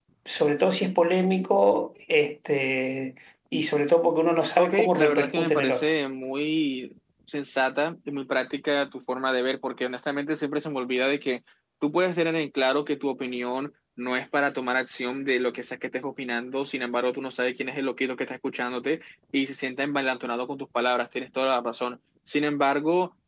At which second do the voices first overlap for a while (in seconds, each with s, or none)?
4.6 s